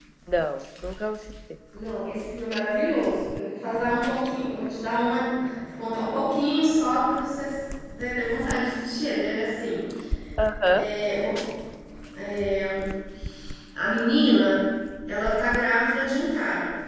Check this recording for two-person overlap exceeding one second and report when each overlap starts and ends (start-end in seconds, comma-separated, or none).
none